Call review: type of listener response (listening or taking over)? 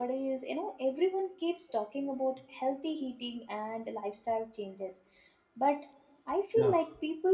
listening